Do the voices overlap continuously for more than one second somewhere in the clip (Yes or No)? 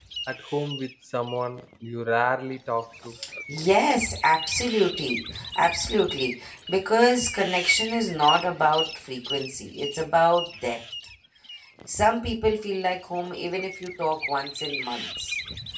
No